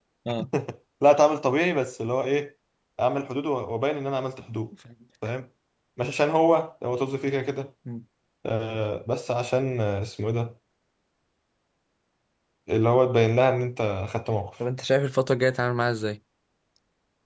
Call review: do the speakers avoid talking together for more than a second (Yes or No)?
Yes